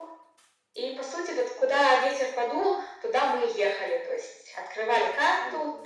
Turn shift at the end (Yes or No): No